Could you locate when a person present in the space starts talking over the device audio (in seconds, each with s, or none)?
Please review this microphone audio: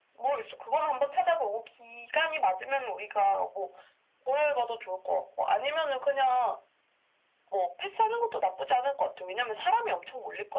none